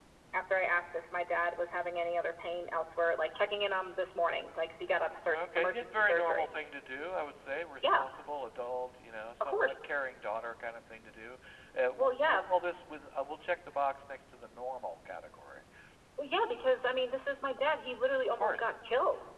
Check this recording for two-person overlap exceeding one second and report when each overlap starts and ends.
5.3-6.5

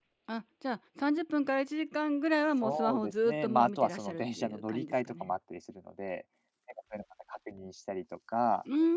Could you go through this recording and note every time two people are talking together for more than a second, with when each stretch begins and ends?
2.6-5.3

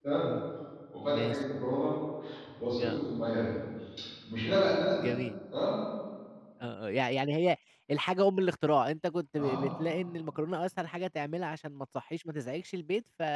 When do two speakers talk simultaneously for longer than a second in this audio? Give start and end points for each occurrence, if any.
none

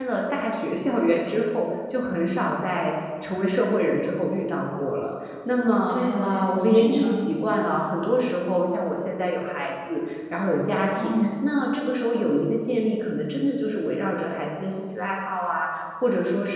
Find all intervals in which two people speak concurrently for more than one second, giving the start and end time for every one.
5.9-7.3

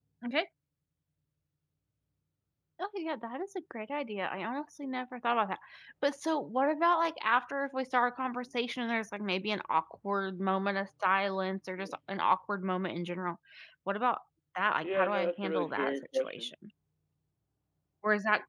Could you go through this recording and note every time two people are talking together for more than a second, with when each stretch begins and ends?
14.8-16.5

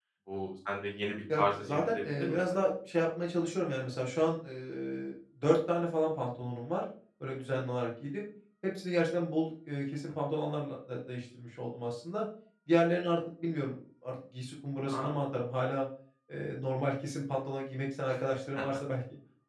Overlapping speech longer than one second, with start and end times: 1.4-2.6

